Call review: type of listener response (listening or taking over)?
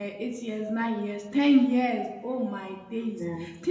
listening